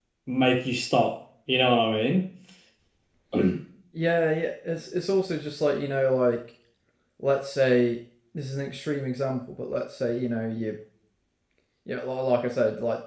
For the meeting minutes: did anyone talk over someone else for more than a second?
No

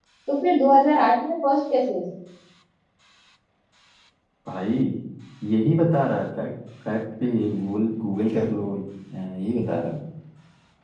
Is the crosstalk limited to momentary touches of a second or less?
Yes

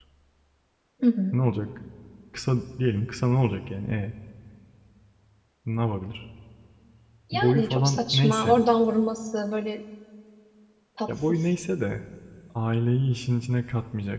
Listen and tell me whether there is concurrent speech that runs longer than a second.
Yes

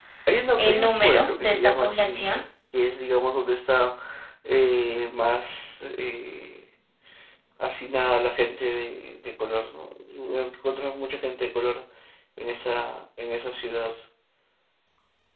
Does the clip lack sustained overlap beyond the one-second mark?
No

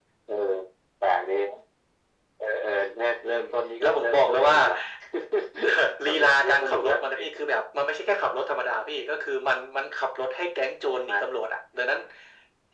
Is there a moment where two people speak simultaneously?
Yes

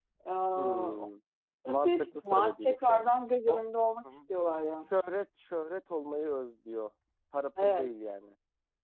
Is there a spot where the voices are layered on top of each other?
Yes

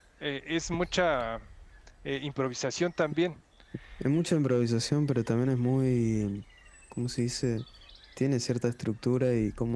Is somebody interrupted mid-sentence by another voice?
No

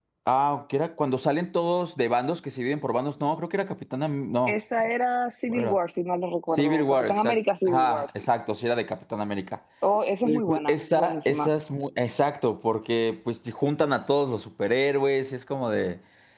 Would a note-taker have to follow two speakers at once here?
Yes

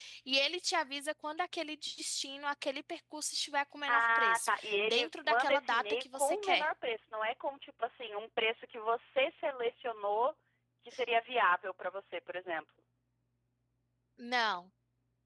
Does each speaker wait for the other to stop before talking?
No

